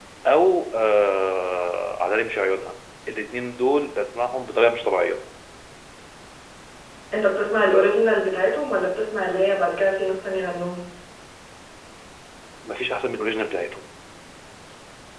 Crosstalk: none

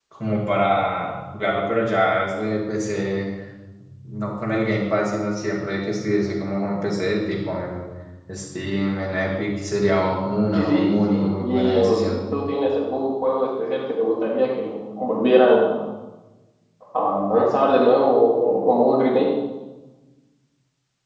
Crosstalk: present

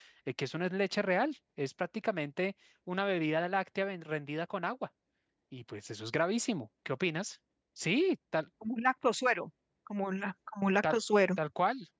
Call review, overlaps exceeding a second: none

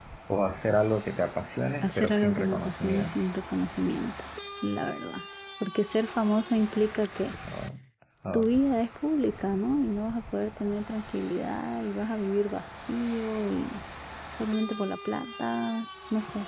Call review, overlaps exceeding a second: present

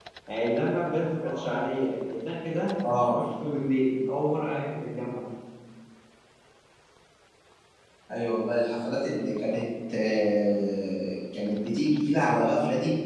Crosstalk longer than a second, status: none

